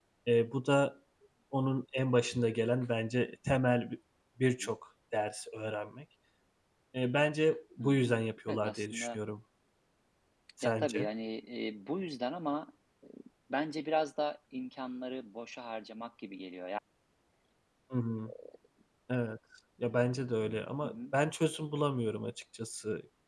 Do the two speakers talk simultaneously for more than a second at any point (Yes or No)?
Yes